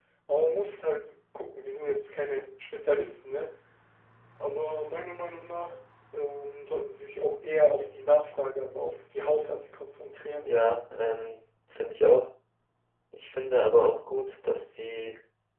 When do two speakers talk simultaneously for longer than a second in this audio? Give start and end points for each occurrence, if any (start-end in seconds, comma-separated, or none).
none